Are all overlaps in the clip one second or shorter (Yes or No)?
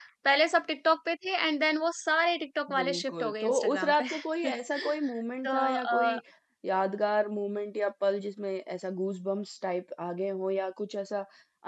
No